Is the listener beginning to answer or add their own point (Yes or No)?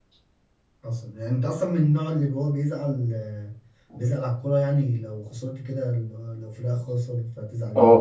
Yes